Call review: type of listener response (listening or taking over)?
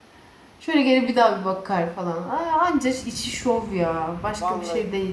taking over